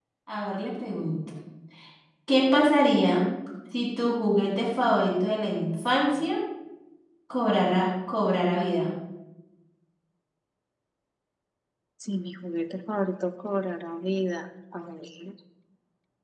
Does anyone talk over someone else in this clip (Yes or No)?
No